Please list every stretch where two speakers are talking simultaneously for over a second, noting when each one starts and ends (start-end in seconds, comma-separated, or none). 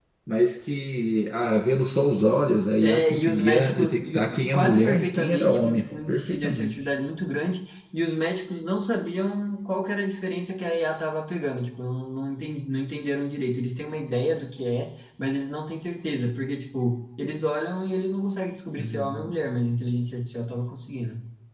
2.8-6.7